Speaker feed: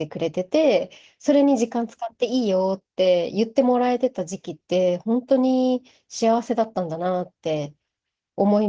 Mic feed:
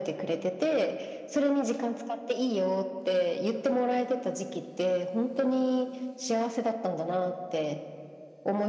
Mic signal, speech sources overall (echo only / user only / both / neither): echo only